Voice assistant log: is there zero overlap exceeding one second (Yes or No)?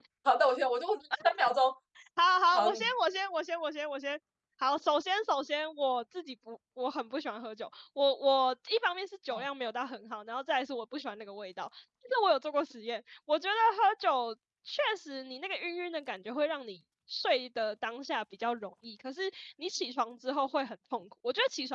Yes